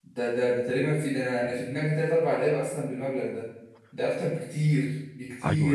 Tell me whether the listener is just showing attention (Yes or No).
No